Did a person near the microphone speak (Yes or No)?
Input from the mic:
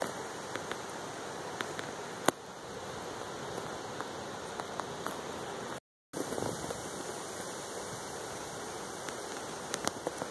No